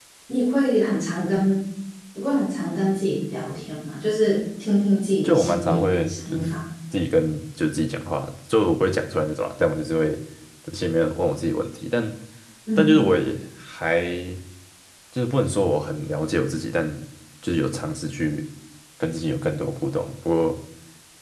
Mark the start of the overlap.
5.2 s

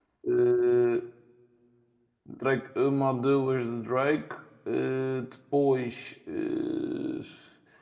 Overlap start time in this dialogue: none

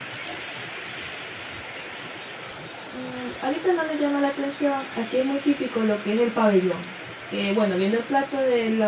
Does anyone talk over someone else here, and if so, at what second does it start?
none

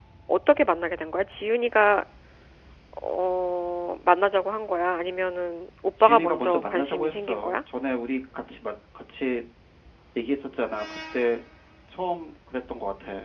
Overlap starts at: 6.0 s

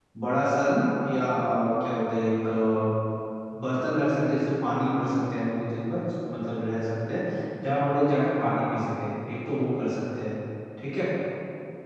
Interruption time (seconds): none

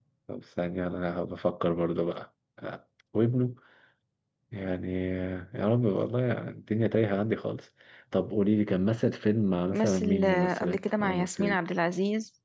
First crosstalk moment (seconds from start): 9.7 s

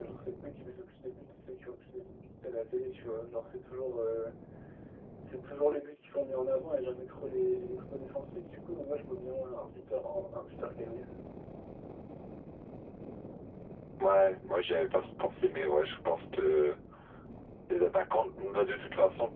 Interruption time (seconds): none

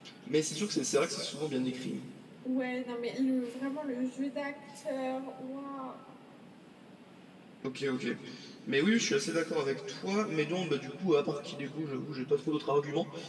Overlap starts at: none

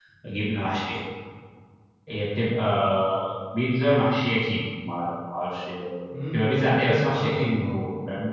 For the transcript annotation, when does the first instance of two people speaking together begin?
6.3 s

